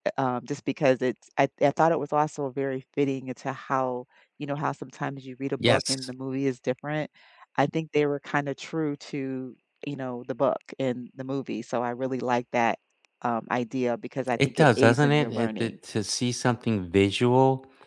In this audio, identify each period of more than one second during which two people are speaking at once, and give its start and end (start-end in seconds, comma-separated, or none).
14.4-15.7